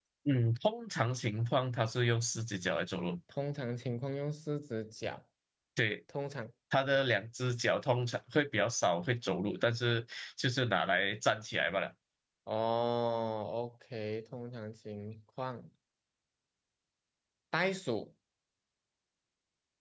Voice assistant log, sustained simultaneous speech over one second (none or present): none